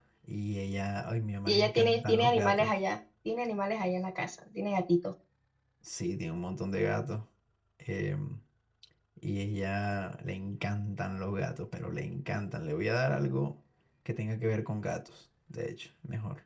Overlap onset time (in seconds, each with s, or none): 1.5 s